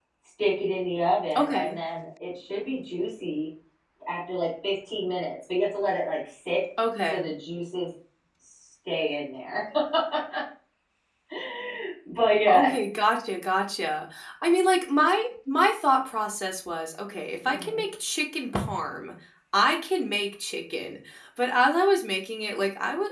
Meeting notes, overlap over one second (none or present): none